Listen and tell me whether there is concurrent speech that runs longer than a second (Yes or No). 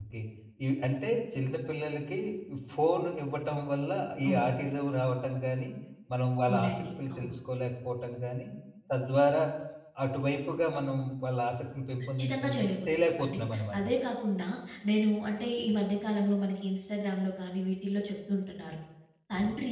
Yes